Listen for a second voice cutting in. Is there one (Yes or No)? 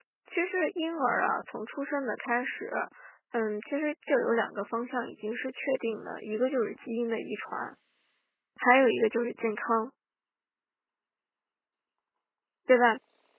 No